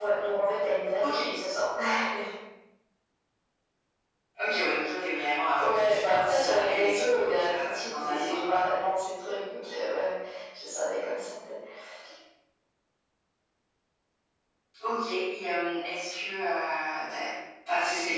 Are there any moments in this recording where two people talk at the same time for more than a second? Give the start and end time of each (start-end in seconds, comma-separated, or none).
5.6-8.6